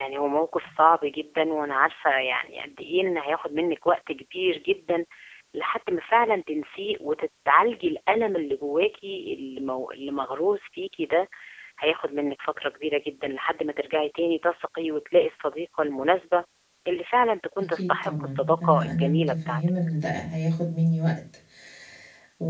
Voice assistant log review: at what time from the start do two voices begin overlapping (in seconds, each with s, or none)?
17.7 s